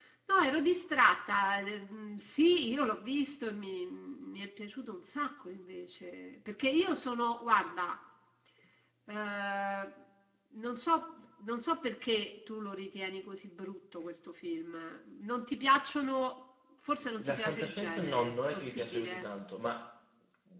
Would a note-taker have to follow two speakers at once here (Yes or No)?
Yes